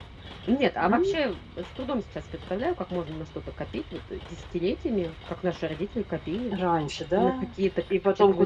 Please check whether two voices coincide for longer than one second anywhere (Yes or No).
No